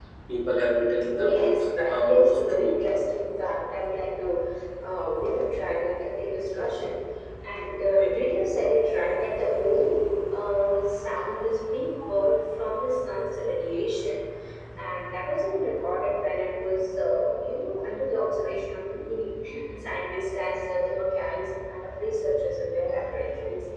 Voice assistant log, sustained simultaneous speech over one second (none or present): present